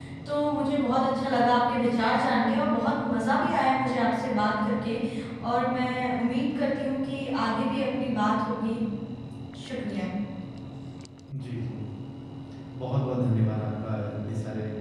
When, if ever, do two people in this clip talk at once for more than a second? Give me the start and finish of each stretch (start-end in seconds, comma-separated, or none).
none